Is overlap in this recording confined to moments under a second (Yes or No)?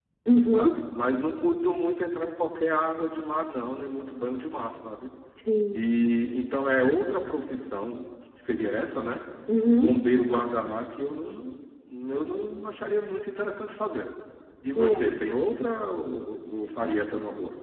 Yes